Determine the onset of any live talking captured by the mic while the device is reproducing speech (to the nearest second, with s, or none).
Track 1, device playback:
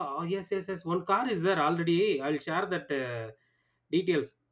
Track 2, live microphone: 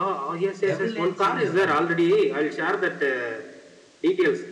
1 s